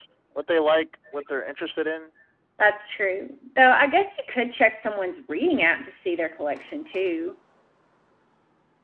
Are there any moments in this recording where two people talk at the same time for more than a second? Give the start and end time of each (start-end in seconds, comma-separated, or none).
none